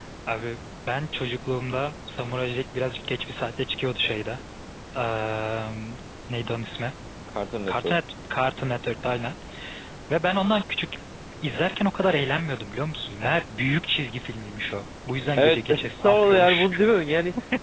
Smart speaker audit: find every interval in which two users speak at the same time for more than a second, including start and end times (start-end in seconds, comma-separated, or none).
15.4-16.7